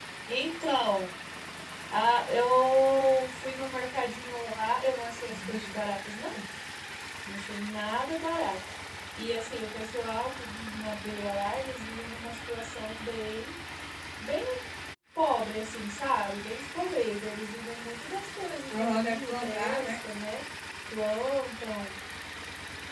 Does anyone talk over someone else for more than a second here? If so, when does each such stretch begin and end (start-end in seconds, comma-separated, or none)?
18.7-19.9